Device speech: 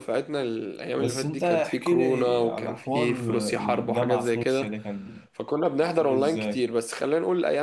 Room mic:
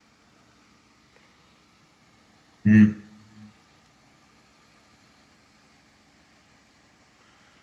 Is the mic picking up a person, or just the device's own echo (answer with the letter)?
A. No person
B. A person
B